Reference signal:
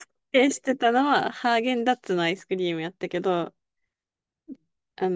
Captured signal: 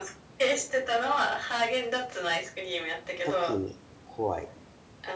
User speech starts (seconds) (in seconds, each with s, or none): 3.2 s